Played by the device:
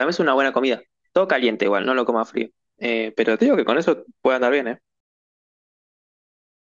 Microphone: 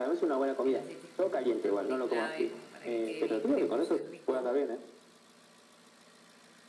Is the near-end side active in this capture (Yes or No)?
Yes